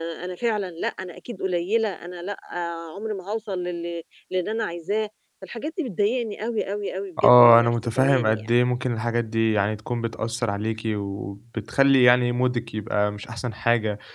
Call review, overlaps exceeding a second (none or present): present